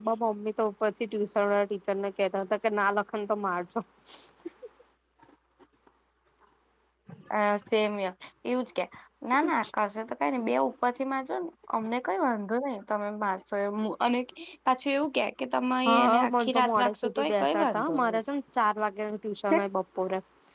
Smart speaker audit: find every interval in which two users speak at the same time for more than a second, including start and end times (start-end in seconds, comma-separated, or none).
15.9-18.2